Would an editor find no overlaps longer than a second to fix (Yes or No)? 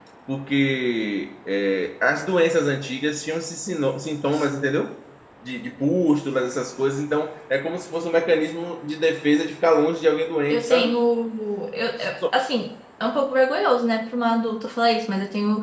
Yes